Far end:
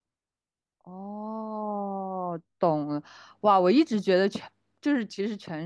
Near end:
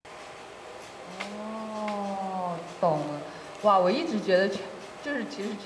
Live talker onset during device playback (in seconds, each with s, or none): none